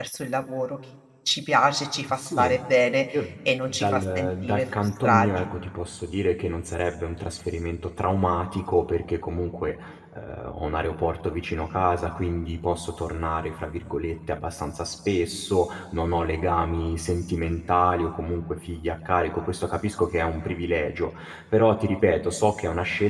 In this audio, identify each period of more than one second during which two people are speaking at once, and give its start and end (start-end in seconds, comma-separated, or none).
3.7-5.5